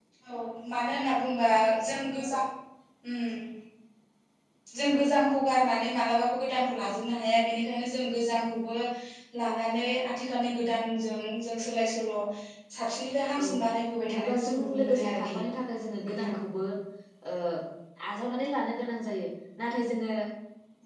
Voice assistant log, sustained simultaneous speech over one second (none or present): present